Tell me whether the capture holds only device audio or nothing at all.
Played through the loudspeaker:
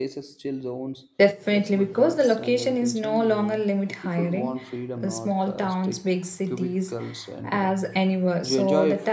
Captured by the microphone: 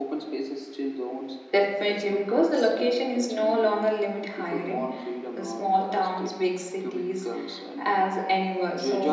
Yes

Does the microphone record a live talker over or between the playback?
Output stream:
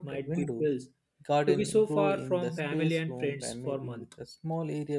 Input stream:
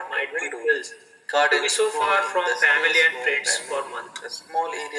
No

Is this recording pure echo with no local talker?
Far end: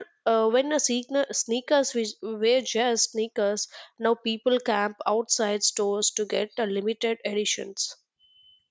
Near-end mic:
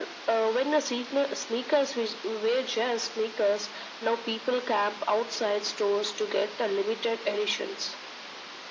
Yes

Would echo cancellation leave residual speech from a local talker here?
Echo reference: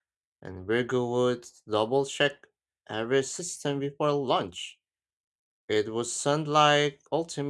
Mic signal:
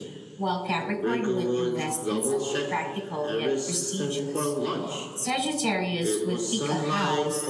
Yes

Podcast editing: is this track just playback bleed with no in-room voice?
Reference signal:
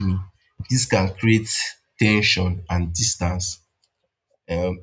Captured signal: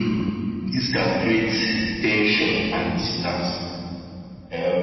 Yes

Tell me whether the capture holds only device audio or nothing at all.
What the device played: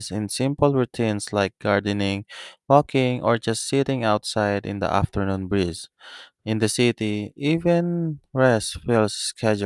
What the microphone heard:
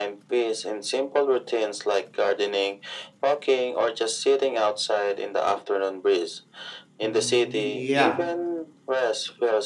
No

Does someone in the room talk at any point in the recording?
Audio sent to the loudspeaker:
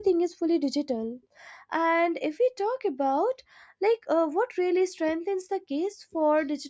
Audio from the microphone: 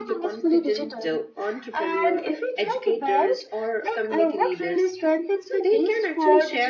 Yes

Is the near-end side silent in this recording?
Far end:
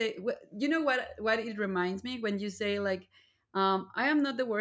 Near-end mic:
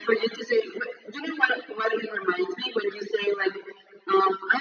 Yes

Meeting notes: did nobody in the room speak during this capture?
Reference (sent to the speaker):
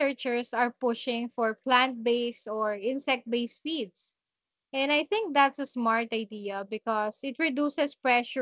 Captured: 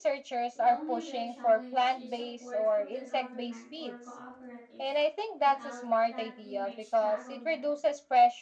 No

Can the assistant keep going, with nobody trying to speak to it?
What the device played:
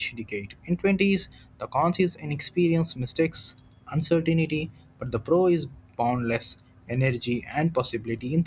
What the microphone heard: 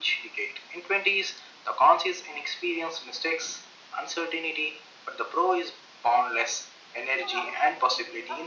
No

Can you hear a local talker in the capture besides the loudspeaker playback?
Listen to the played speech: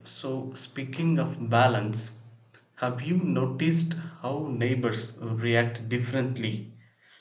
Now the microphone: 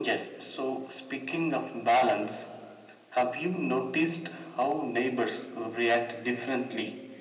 No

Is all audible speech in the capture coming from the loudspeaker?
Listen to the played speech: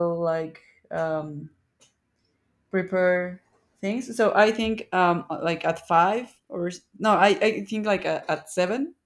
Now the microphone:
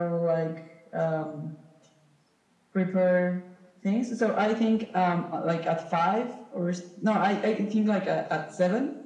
Yes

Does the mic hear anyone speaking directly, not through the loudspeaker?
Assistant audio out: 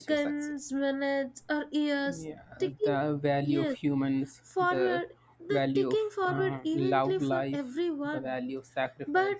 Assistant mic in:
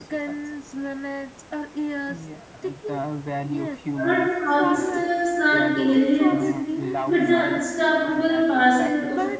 Yes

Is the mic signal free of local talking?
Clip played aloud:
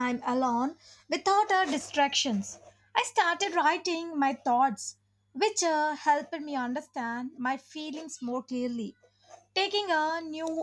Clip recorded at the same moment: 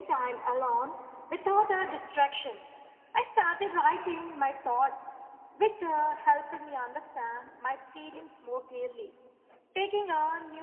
Yes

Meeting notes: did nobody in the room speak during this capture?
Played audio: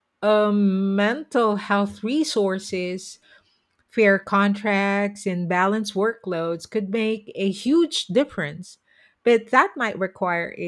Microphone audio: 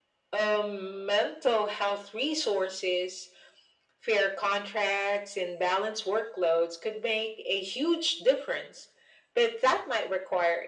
Yes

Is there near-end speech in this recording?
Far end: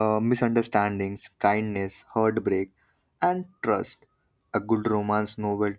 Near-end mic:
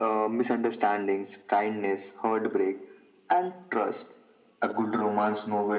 No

